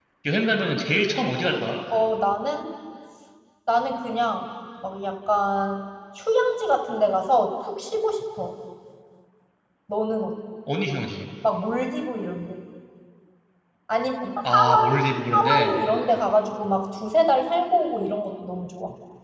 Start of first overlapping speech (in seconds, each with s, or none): 14.5 s